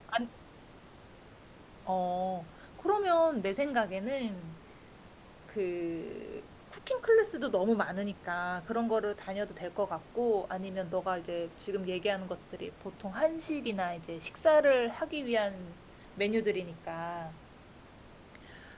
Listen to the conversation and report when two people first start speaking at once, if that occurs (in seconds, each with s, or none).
none